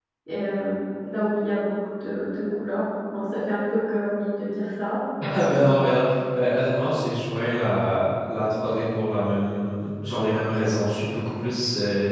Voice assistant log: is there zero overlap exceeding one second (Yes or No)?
Yes